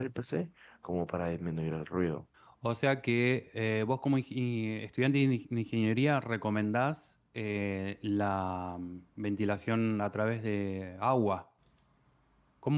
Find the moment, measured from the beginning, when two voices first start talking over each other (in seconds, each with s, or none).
none